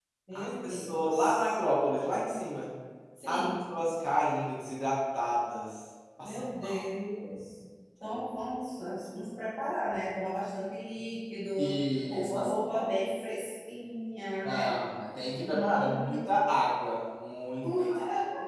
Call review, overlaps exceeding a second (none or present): present